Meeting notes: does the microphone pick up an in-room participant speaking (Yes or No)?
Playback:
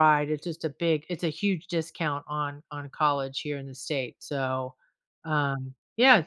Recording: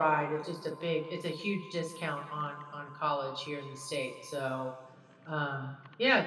No